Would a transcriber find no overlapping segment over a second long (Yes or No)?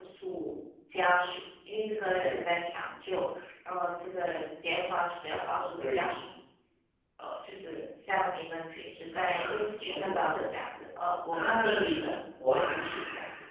No